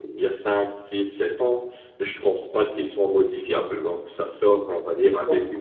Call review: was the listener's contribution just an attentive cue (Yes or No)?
Yes